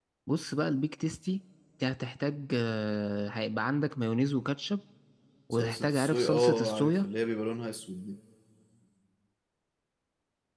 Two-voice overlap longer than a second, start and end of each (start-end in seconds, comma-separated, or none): 5.5-7.1